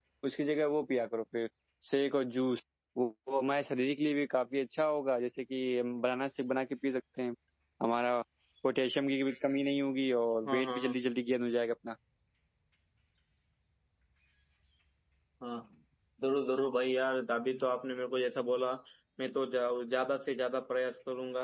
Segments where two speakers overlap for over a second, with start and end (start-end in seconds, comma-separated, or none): none